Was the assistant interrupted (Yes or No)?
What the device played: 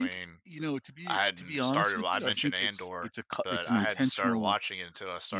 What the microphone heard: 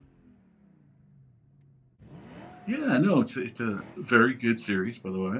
Yes